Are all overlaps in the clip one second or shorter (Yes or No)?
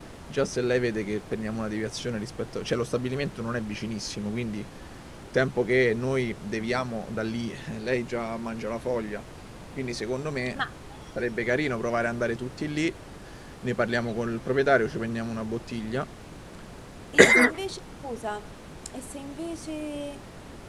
Yes